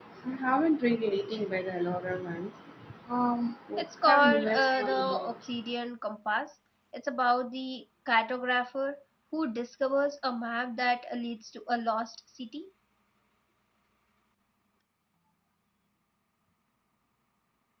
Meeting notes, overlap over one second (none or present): present